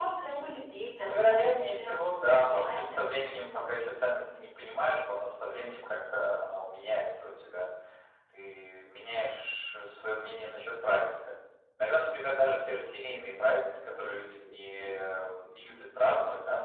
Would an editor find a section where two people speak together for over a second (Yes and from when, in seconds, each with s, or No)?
Yes, from 1.0 s